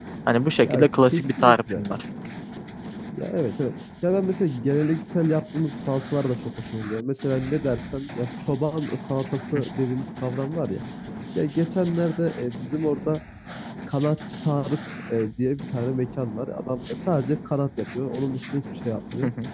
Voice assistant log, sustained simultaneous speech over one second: present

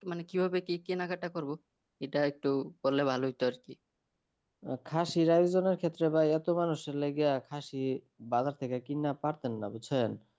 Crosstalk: none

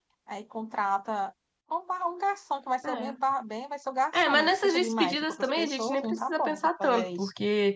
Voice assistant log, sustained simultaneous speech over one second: present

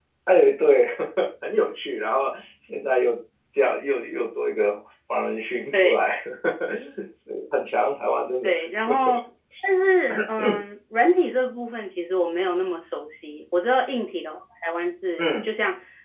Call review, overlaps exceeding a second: none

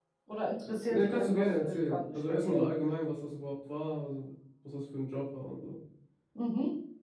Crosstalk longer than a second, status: present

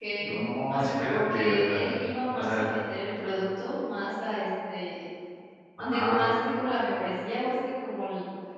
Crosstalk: present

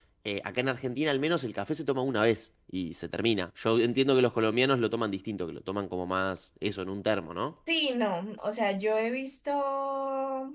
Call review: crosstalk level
none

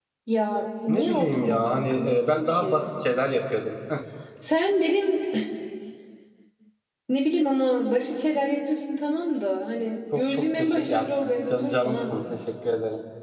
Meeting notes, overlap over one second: present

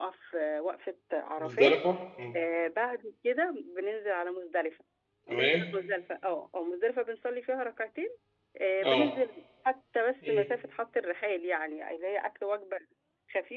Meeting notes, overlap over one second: none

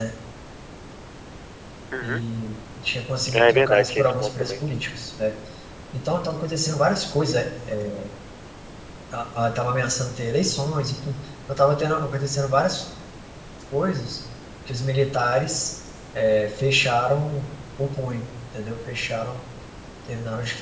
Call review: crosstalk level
present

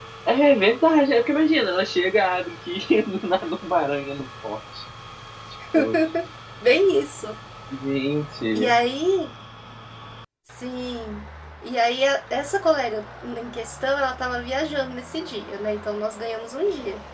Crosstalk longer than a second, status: none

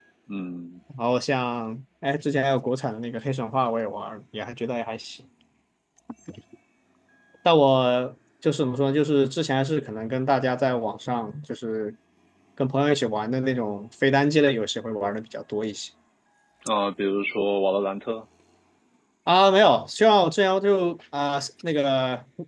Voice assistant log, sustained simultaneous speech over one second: none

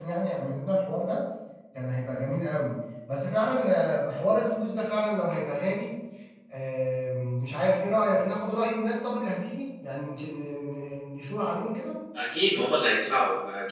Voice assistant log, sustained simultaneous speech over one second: none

